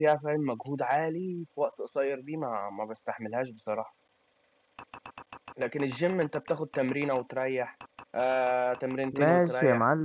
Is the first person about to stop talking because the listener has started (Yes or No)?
Yes